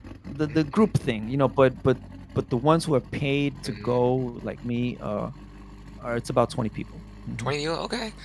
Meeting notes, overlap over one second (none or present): none